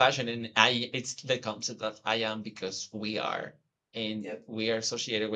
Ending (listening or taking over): listening